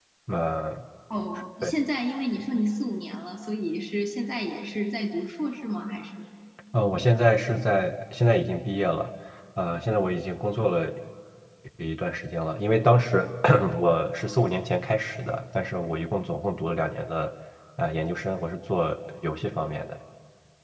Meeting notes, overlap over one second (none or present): none